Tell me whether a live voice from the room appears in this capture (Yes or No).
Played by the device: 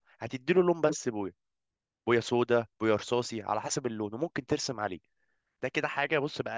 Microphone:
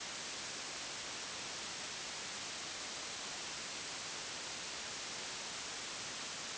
No